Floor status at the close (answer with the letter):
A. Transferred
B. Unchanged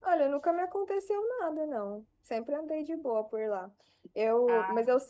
B